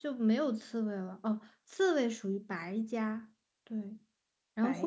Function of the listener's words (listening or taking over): listening